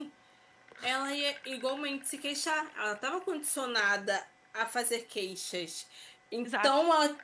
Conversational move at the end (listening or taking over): listening